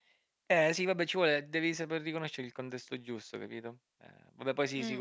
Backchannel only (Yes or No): No